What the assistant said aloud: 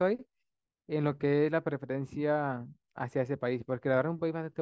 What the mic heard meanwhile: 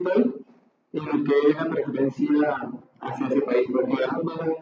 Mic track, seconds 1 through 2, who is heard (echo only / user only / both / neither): echo only